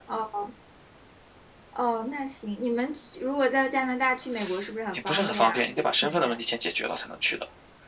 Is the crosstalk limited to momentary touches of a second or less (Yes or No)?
No